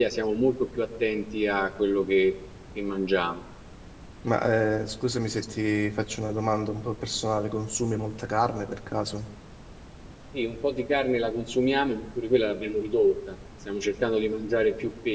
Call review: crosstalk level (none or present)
none